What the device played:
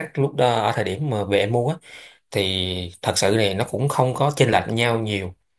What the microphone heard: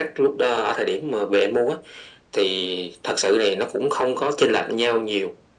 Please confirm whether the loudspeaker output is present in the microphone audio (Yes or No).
Yes